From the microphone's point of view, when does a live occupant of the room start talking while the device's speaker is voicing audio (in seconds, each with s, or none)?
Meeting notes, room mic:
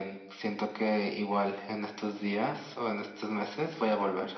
none